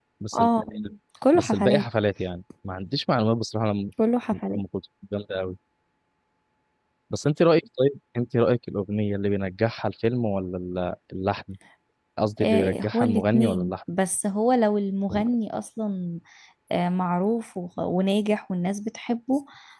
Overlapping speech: Yes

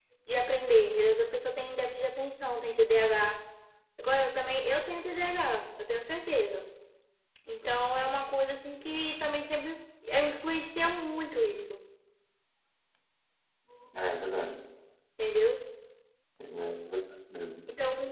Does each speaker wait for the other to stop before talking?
Yes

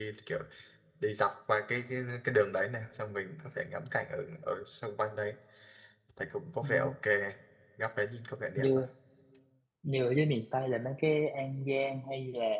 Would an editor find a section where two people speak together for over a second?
No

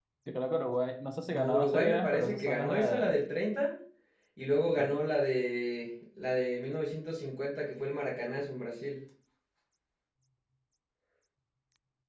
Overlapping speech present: Yes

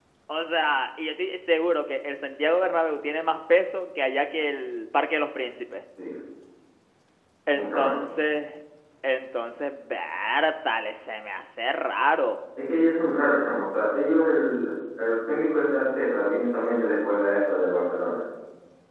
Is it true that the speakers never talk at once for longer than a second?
Yes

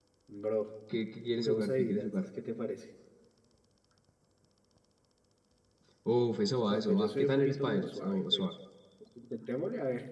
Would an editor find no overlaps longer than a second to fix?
No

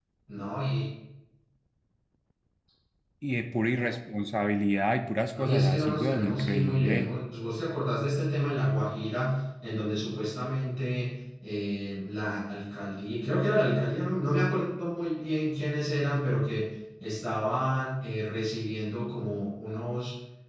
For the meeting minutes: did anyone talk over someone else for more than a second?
Yes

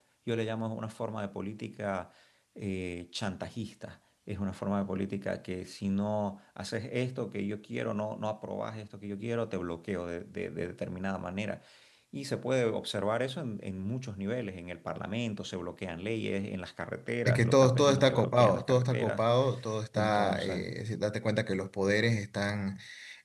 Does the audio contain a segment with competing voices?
Yes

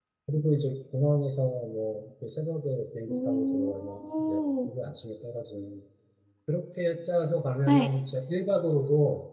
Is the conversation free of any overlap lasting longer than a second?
No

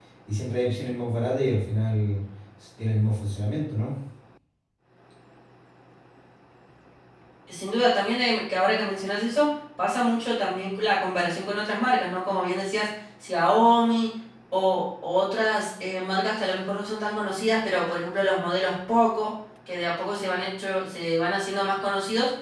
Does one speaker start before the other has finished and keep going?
No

